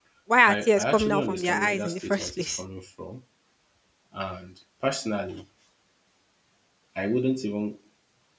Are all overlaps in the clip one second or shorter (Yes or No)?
No